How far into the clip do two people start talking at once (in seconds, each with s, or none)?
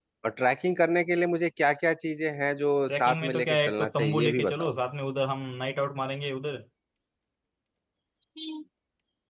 2.9 s